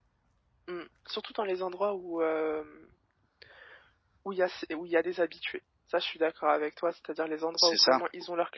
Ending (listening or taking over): listening